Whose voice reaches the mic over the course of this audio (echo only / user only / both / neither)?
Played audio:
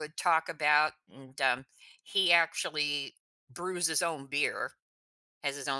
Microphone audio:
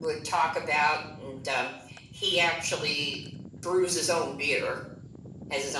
echo only